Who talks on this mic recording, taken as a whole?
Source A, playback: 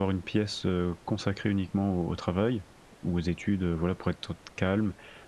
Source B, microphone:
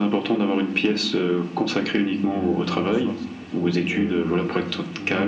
both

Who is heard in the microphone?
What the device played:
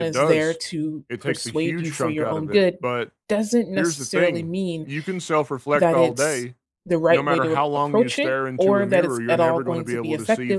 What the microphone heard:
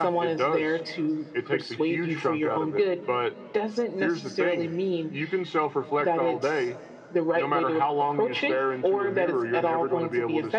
echo only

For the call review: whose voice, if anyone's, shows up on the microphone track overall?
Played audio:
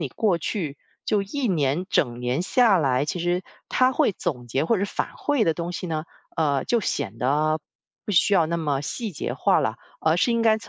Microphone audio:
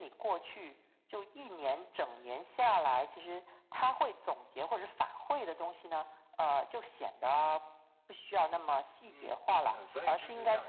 both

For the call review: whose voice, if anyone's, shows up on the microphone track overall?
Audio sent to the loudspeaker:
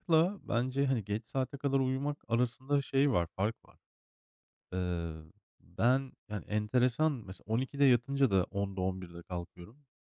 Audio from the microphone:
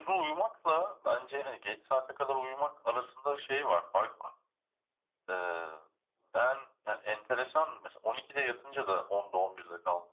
echo only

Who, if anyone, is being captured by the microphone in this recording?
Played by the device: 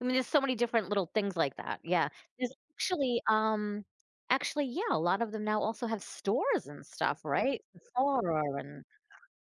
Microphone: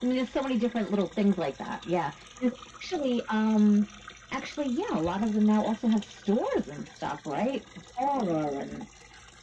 echo only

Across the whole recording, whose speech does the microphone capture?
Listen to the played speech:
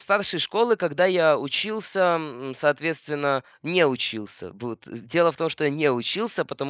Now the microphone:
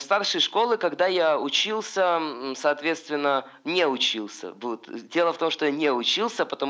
echo only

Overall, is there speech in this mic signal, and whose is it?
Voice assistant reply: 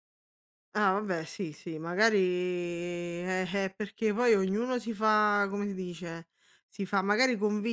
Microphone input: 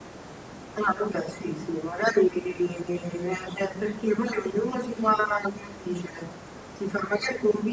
echo only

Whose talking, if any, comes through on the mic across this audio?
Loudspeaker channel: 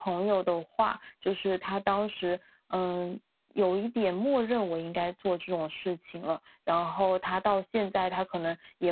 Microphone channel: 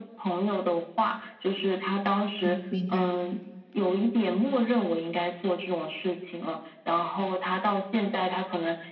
both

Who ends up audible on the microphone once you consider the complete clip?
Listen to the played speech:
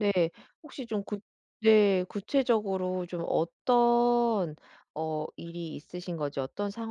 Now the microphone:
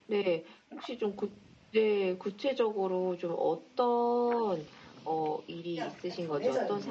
both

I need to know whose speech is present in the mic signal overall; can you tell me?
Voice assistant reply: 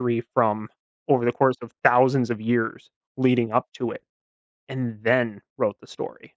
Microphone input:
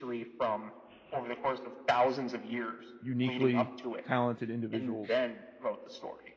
both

